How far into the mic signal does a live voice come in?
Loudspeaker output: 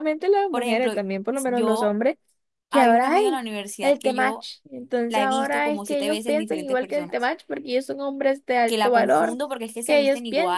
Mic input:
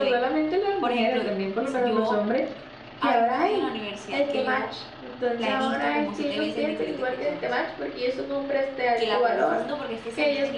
none

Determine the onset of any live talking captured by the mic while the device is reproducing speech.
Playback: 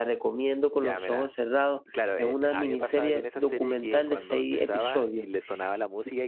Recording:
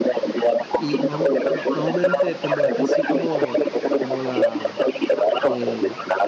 1 s

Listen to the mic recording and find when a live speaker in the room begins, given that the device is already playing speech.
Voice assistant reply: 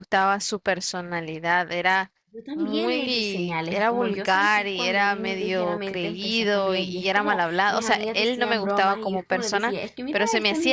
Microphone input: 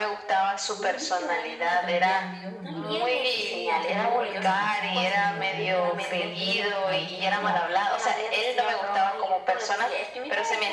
1 s

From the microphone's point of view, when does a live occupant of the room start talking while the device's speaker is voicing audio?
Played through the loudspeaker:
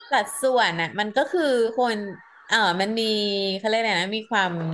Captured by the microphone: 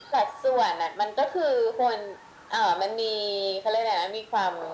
none

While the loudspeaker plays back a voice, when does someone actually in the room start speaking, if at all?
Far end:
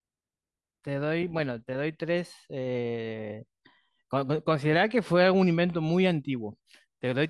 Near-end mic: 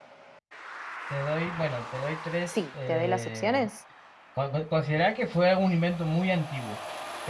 2 s

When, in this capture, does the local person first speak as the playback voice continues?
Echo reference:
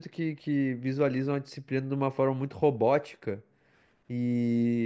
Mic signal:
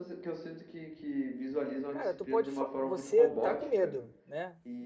2 s

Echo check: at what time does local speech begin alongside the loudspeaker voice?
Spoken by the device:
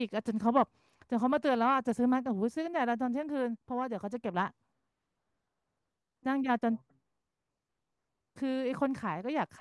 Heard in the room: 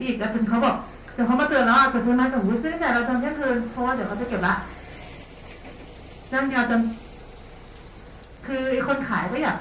none

